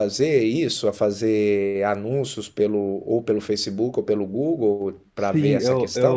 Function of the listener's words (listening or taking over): taking over